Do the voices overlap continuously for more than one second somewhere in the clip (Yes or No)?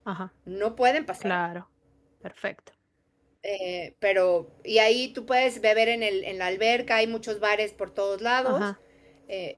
No